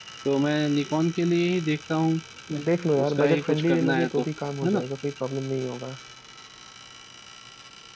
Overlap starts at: 3 s

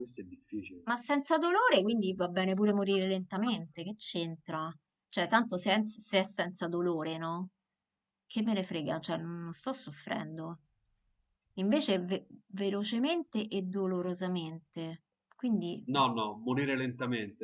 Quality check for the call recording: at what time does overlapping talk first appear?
none

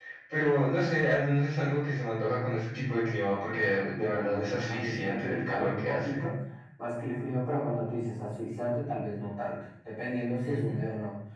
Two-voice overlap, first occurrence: 4 s

